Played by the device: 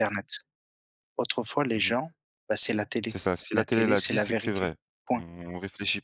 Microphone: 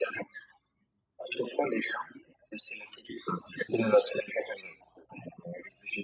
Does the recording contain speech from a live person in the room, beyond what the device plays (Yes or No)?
No